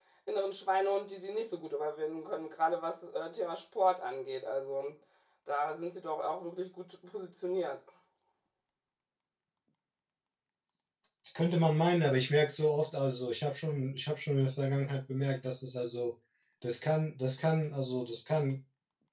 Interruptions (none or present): none